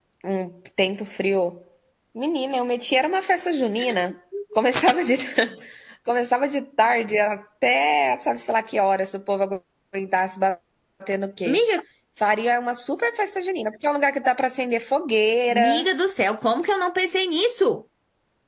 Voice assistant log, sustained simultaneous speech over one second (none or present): none